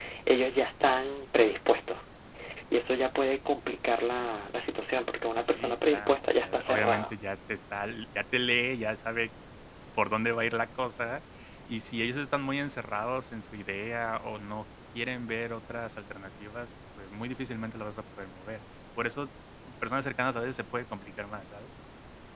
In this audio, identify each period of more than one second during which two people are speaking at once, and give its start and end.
5.5-7.1

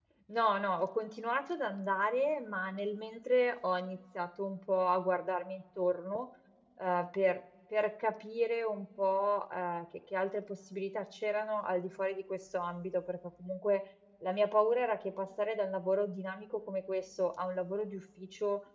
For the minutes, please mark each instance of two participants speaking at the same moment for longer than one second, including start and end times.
none

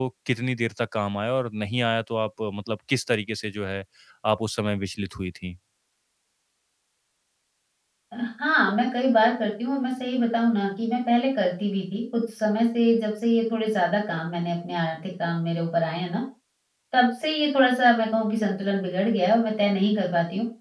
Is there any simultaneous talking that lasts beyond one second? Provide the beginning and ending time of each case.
none

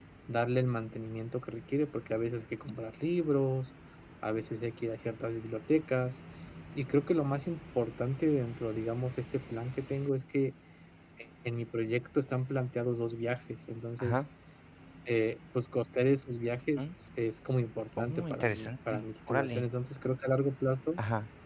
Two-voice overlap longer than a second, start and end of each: 18.0-19.6

